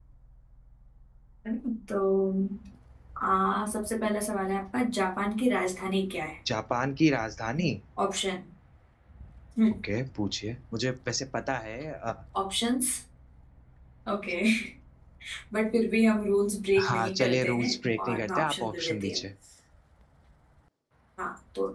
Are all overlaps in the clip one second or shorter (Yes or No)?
No